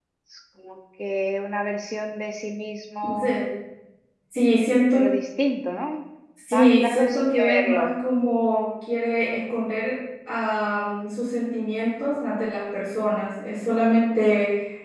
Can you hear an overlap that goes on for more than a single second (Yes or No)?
Yes